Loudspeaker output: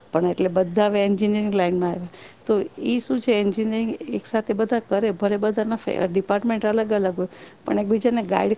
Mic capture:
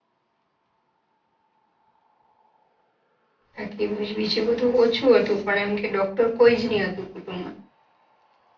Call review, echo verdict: none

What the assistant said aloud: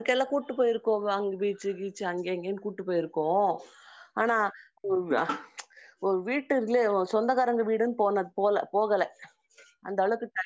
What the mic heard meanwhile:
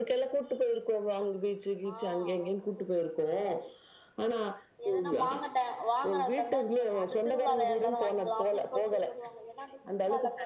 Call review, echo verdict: present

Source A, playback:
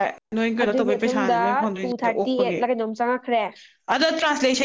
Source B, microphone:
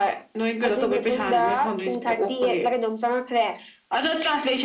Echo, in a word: present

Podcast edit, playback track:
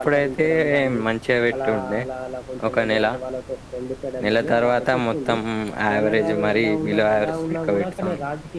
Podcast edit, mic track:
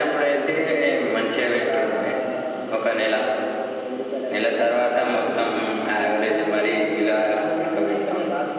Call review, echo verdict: present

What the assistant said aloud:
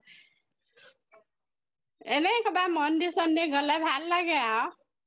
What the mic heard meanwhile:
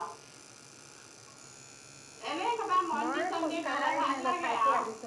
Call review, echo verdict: present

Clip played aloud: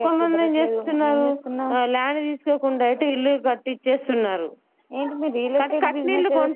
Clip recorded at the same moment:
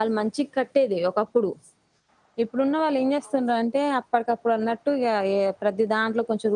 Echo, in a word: none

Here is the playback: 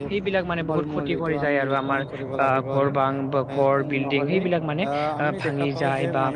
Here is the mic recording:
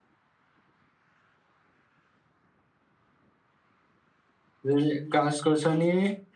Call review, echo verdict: none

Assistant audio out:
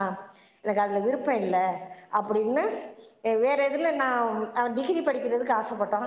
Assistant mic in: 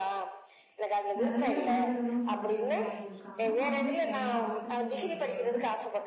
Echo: present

